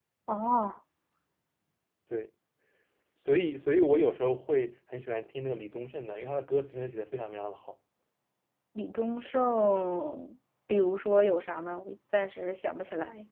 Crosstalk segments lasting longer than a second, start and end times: none

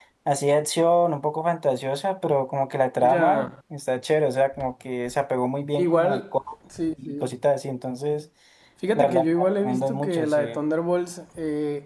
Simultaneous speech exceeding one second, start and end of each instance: 8.9-10.6

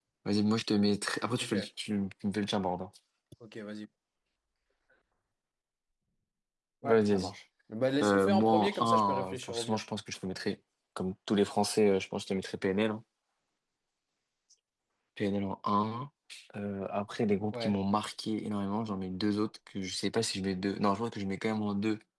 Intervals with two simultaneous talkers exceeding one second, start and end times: 8.0-9.8

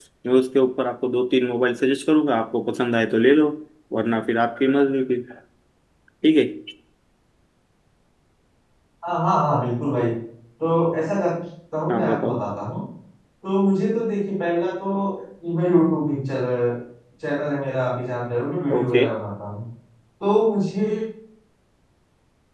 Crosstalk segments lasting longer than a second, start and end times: none

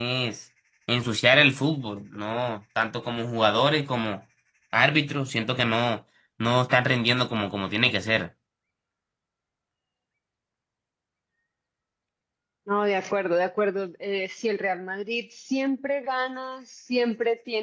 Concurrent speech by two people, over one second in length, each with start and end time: none

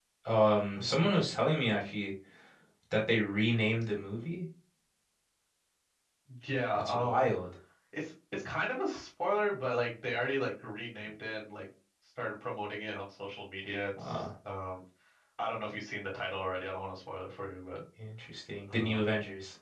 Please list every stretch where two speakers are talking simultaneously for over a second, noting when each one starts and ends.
none

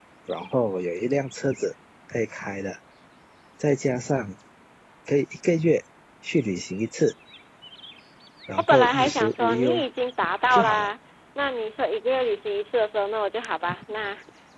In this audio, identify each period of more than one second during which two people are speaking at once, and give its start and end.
8.6-9.8

